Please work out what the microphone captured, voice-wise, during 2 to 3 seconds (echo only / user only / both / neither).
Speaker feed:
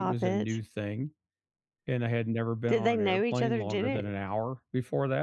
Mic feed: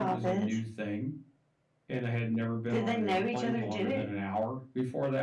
echo only